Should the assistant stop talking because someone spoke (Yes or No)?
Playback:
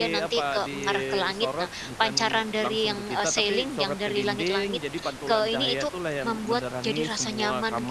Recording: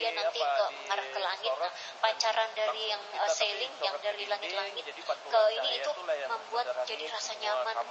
No